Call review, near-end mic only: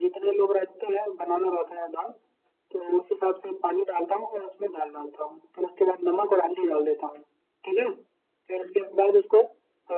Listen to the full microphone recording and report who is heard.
echo only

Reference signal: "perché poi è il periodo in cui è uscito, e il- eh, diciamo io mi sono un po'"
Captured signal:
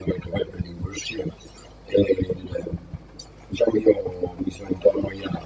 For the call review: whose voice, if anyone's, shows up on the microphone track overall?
echo only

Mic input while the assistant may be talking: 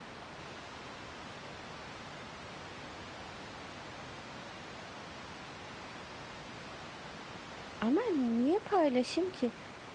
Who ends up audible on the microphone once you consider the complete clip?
user only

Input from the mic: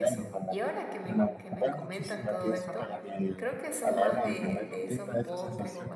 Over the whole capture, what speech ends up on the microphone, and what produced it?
both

